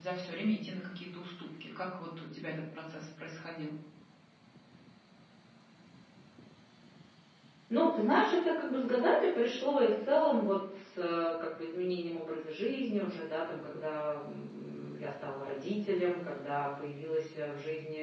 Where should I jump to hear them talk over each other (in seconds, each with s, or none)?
none